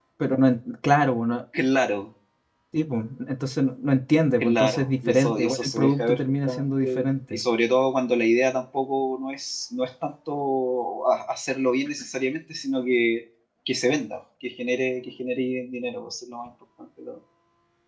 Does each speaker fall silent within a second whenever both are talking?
No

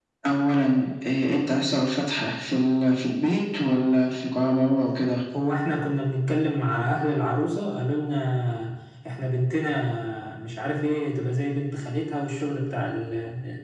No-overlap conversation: Yes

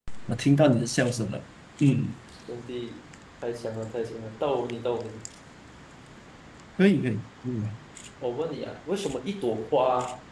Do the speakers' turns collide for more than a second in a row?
No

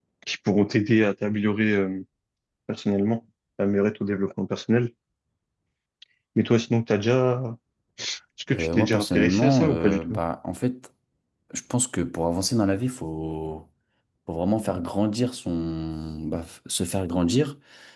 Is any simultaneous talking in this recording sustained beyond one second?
Yes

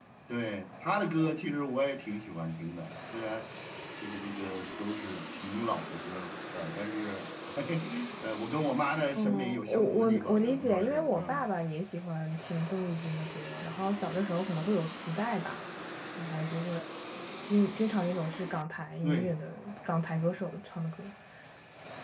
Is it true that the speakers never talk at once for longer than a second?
No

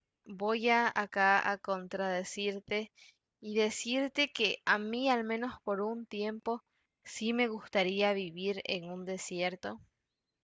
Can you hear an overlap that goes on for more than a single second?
No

